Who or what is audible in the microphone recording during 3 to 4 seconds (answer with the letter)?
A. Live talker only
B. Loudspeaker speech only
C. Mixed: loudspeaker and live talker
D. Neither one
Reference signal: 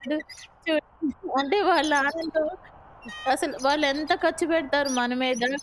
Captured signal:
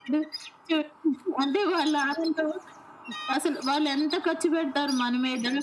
B